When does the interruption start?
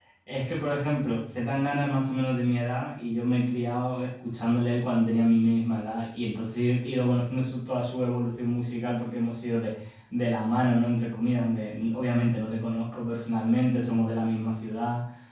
none

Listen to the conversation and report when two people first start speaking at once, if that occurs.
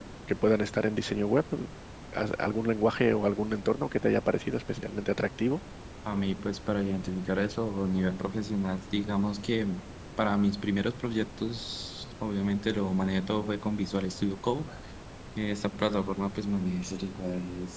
none

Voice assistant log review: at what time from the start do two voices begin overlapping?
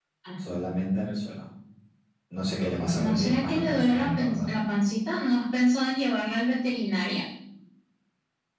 3.0 s

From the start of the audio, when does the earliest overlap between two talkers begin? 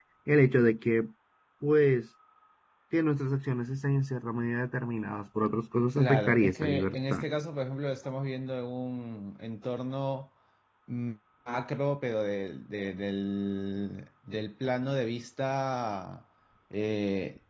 6.0 s

